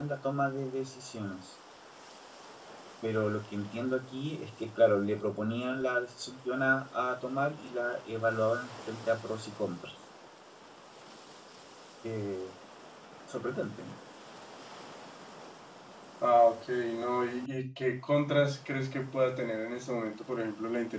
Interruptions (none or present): none